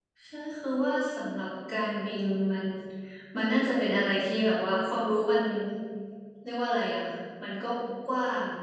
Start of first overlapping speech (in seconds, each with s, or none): none